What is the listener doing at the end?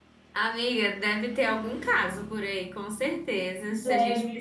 listening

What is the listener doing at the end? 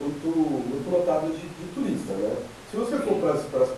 listening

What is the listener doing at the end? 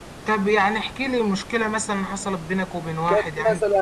taking over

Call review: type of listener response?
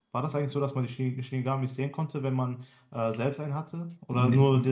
taking over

